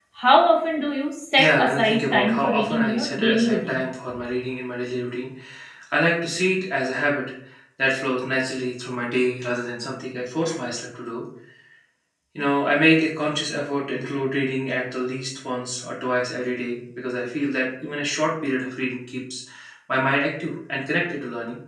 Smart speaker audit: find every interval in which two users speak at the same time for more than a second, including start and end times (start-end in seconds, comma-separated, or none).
1.4-3.8